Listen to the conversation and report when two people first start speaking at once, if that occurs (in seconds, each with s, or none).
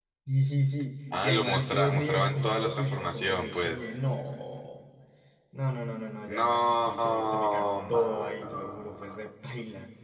1.2 s